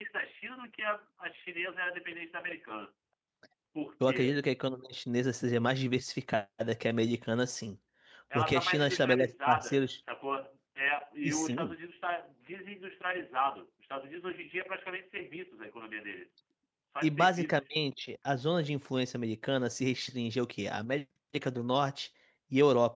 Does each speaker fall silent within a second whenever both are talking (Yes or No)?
No